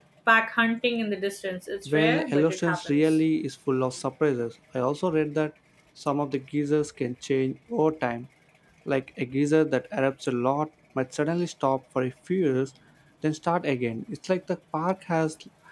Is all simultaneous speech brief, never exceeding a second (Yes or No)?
No